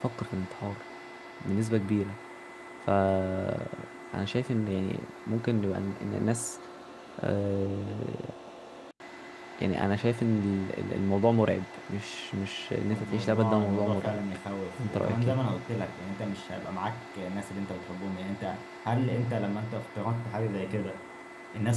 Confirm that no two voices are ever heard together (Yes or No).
No